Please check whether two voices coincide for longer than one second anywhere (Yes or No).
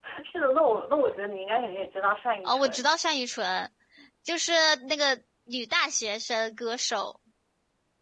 No